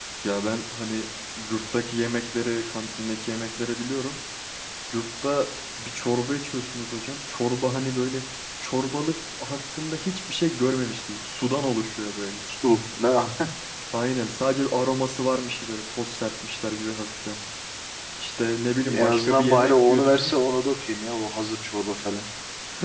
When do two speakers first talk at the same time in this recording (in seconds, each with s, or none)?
18.9 s